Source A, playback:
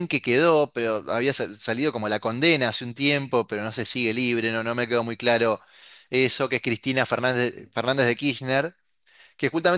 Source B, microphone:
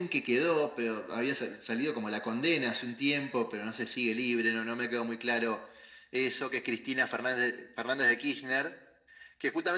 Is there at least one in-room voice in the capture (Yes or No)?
No